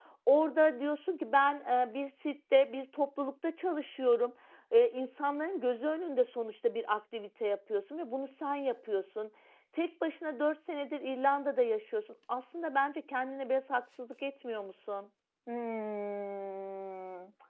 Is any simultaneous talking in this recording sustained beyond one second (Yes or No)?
No